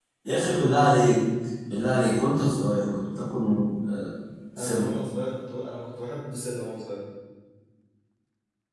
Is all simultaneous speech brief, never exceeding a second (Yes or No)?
Yes